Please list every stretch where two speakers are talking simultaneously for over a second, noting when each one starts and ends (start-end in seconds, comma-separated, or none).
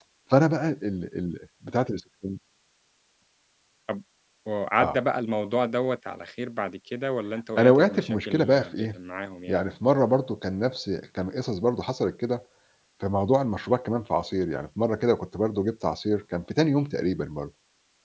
7.6-8.9